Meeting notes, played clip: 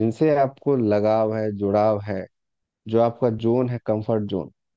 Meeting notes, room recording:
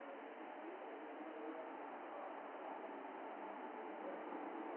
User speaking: No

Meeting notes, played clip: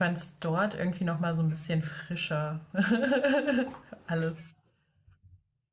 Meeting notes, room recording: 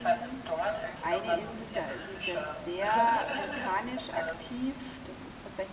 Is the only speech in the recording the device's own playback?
No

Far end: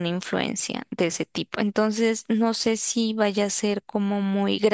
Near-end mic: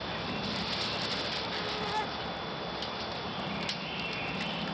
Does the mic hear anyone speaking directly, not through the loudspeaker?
No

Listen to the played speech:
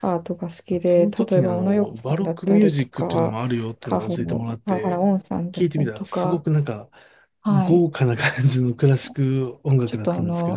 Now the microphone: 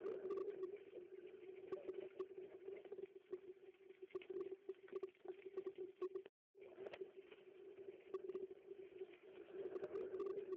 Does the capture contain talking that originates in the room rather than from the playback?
No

